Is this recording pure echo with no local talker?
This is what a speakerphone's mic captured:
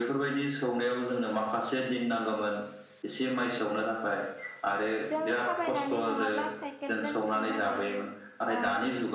No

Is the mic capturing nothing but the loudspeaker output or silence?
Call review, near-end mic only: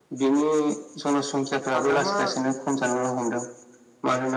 No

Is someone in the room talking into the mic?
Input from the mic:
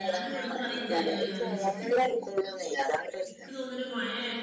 Yes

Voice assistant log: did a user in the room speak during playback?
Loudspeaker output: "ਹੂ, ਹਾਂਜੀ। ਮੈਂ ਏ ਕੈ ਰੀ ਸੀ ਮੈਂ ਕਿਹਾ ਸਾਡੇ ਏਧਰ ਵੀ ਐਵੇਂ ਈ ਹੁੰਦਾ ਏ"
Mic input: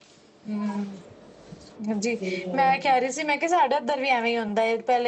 Yes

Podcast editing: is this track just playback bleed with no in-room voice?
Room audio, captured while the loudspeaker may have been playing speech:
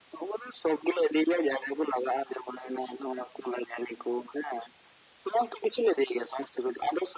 Yes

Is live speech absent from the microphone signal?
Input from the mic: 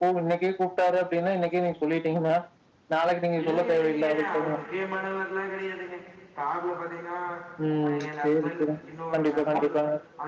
No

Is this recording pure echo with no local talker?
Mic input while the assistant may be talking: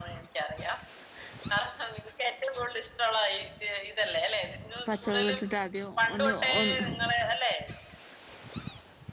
No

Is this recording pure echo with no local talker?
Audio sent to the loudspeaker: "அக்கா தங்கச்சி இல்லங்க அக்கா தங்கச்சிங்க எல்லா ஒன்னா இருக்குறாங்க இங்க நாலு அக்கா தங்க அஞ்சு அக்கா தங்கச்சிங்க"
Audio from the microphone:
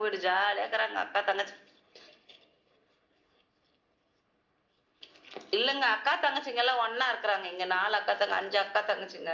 Yes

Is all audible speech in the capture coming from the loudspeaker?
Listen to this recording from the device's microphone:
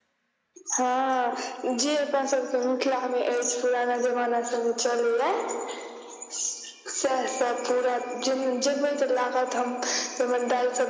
Yes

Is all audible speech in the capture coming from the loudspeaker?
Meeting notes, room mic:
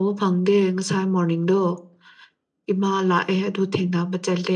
Yes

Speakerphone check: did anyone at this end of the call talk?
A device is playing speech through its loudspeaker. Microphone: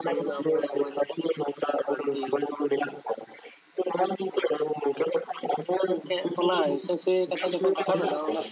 Yes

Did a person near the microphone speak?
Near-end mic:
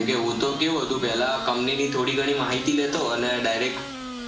No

